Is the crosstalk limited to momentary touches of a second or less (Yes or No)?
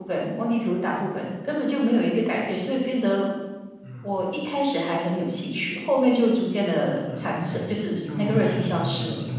No